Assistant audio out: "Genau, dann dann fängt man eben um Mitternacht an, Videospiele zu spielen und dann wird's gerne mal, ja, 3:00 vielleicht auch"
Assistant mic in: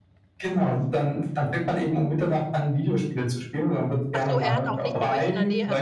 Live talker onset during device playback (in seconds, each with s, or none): 4.2 s